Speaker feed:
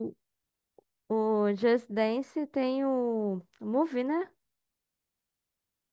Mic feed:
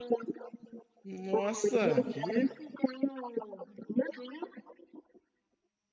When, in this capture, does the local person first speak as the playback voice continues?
1 s

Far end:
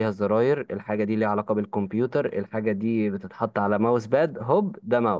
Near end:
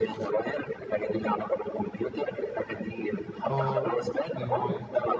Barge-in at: 3 s

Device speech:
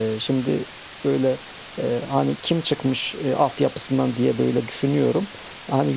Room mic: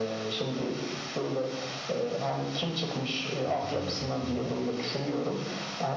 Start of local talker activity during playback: 3 s

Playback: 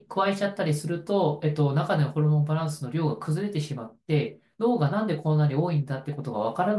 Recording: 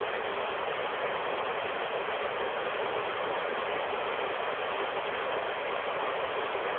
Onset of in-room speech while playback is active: none

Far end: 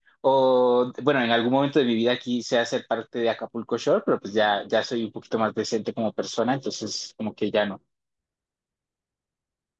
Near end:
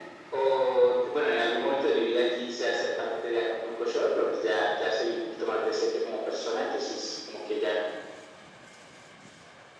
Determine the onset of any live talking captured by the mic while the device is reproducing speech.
none

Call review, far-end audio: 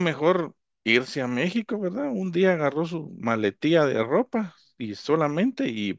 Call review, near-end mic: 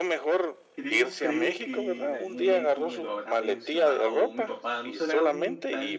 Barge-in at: 1 s

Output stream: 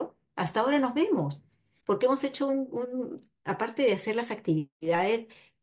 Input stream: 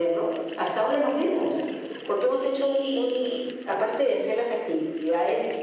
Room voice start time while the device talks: none

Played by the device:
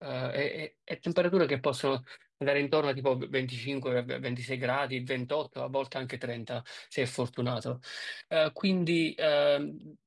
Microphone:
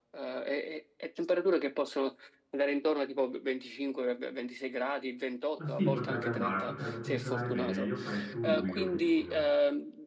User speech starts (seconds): 6 s

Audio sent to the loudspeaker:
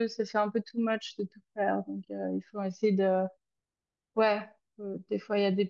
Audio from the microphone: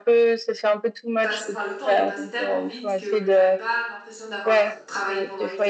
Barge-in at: 1 s

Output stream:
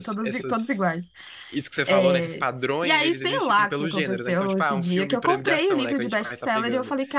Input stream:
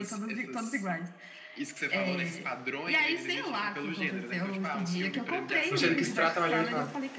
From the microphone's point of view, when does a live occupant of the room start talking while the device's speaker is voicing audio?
6 s

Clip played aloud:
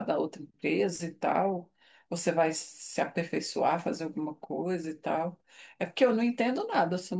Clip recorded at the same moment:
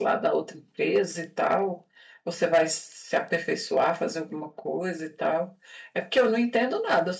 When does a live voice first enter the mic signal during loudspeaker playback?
none

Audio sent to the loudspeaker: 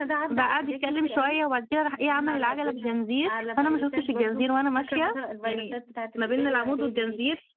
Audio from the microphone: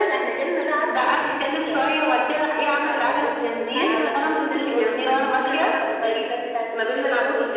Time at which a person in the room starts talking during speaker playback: 4 s

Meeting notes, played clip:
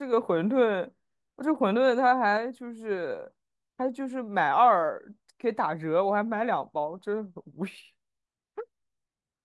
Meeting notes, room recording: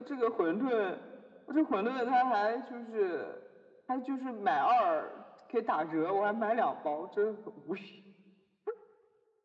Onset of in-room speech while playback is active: none

